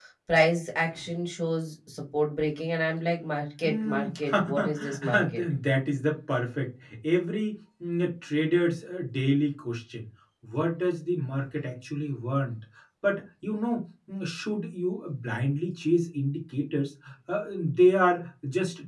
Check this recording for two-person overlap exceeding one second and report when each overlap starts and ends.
3.6-5.4

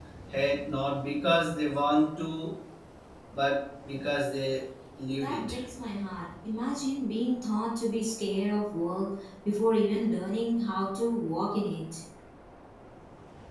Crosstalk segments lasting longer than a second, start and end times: none

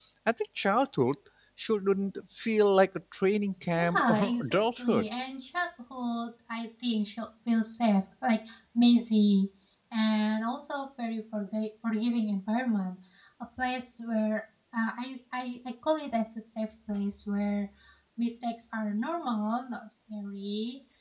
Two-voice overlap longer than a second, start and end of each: 3.8-5.1

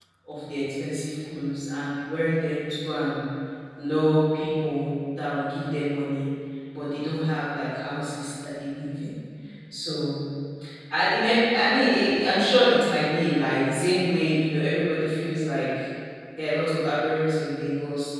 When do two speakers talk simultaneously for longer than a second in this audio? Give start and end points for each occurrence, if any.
none

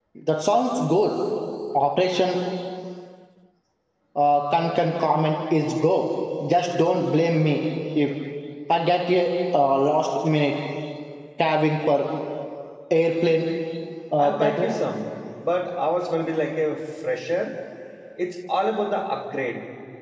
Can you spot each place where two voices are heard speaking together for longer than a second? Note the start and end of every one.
none

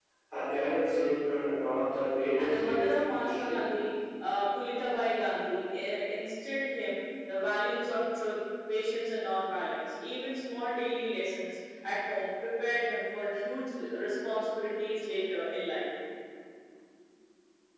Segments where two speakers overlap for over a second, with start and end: 2.4-3.6

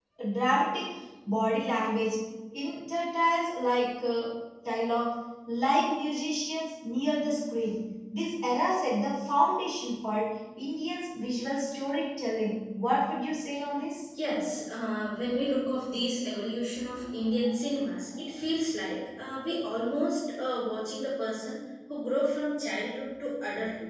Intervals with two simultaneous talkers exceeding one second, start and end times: none

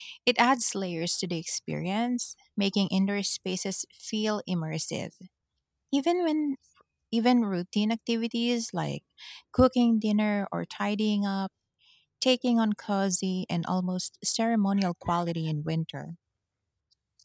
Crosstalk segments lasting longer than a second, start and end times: none

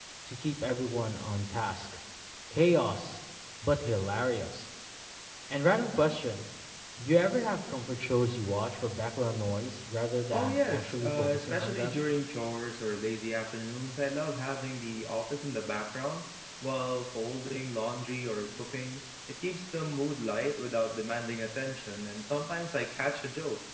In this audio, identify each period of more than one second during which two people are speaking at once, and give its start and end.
10.3-11.9

